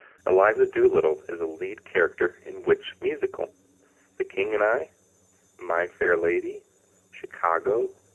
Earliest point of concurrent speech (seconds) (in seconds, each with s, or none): none